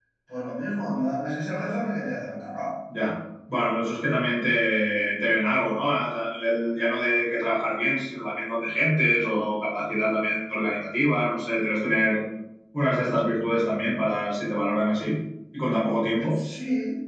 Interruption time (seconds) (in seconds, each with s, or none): none